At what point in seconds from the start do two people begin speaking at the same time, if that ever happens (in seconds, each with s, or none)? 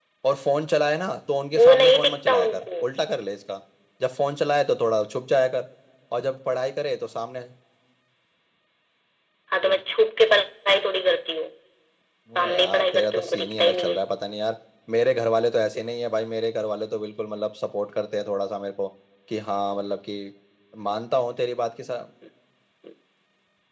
1.6 s